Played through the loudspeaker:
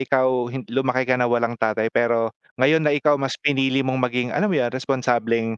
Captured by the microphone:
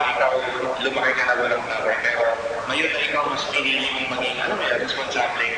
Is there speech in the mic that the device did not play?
No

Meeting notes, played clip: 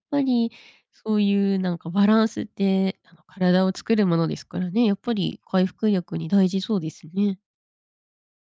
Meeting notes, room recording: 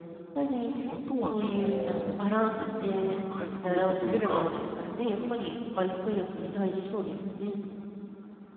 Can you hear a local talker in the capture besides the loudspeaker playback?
Yes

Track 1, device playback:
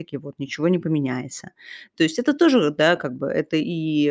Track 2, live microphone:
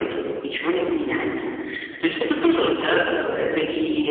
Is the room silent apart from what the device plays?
Yes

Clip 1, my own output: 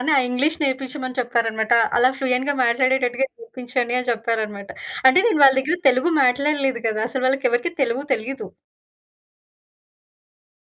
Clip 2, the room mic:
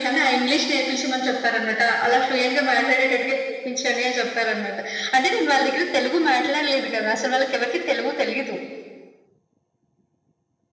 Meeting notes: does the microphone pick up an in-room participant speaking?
No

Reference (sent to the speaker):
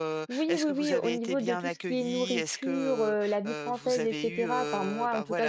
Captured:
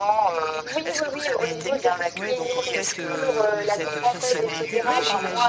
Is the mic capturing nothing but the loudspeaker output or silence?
No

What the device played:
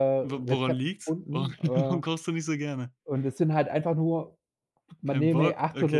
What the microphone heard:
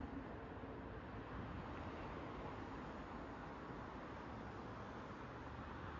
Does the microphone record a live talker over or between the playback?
No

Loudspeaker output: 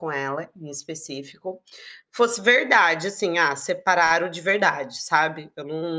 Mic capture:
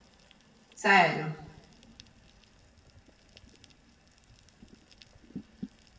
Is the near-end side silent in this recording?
No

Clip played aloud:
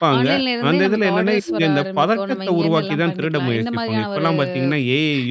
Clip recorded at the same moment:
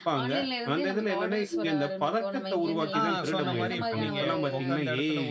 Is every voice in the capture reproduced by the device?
No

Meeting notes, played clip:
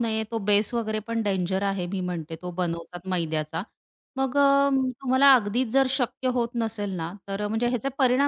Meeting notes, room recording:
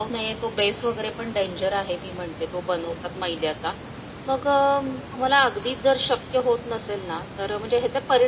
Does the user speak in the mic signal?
No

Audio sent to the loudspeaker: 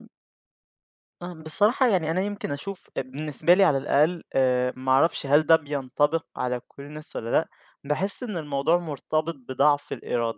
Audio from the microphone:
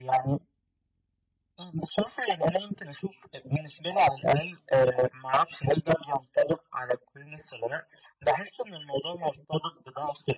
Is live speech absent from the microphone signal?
Yes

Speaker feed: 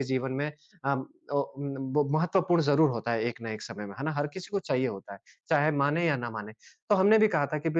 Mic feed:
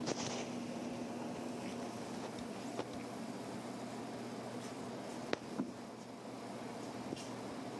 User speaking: No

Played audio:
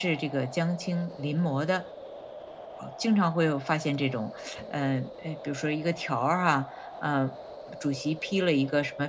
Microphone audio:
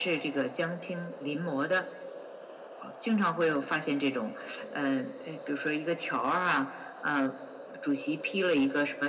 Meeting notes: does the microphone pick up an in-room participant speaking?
No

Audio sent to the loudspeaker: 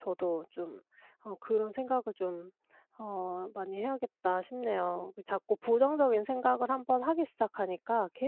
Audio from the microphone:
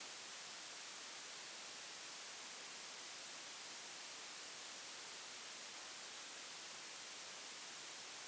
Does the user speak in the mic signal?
No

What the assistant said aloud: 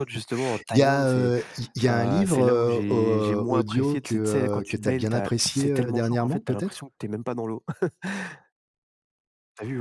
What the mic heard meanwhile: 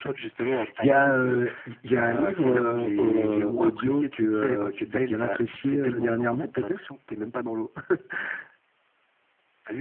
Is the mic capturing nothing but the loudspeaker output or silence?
Yes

